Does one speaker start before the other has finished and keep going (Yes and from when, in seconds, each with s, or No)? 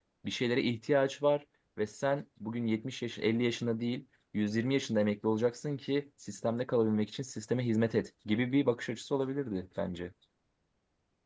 No